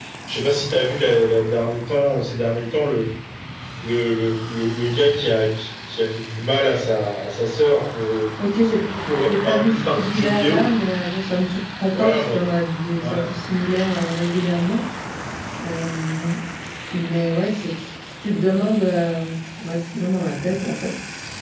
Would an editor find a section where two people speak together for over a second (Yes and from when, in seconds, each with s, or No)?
Yes, from 9.2 s